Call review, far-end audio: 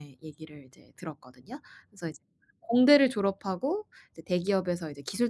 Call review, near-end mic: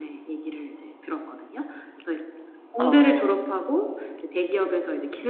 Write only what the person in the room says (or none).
아.